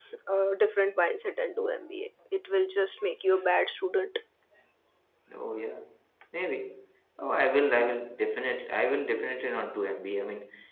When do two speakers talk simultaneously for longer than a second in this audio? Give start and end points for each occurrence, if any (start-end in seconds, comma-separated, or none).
none